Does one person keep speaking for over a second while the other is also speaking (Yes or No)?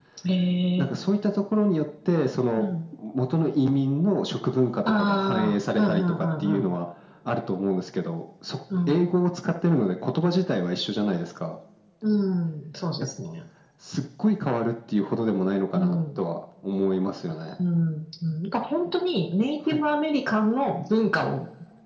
Yes